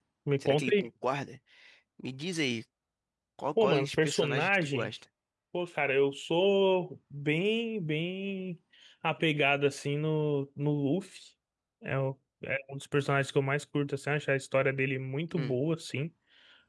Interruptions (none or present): present